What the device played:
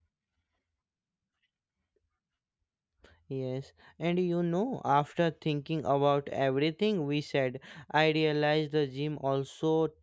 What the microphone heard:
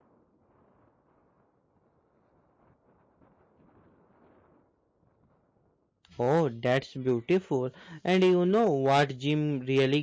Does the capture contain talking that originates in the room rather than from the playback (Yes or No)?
Yes